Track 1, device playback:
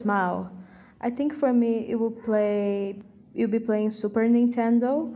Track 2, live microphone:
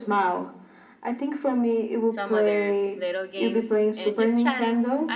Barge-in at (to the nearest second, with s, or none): 2 s